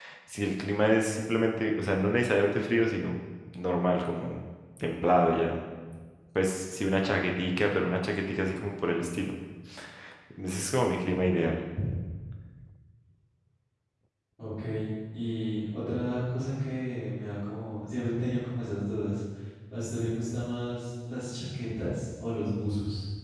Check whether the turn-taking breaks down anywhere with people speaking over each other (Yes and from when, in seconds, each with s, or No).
No